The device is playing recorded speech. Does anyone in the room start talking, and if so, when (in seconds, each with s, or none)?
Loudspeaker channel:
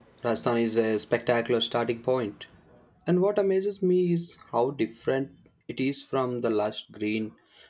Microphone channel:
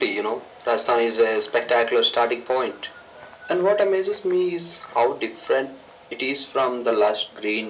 none